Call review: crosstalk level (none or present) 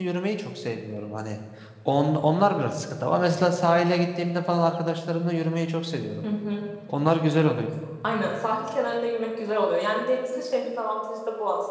none